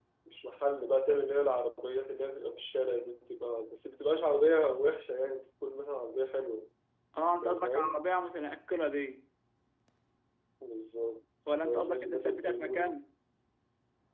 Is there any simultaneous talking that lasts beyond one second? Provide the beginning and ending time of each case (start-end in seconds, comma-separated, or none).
11.5-12.9